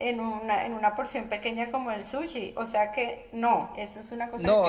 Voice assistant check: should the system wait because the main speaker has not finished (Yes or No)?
No